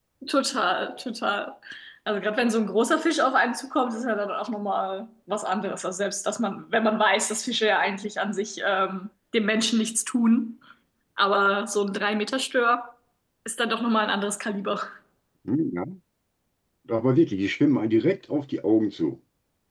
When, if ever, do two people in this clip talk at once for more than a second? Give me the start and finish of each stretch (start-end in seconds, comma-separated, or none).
none